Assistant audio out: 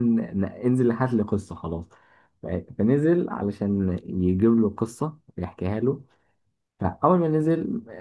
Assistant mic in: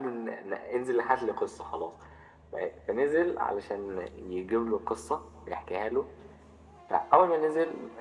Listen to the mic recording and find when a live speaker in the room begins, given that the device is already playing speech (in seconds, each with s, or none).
none